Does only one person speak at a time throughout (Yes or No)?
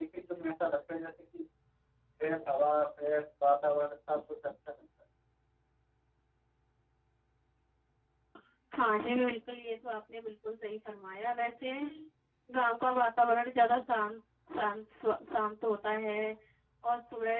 Yes